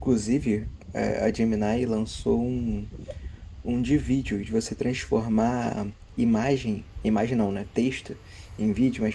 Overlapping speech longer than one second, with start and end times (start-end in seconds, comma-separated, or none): none